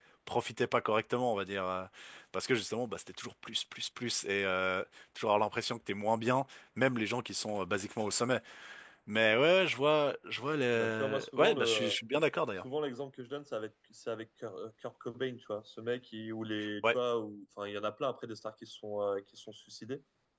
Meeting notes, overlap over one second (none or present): present